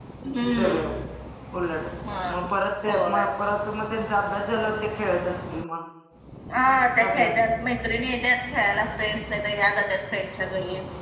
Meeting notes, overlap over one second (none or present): none